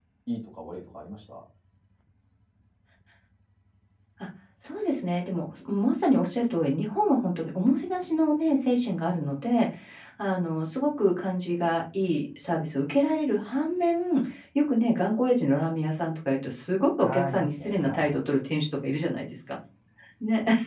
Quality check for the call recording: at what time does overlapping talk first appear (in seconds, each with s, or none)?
17.0 s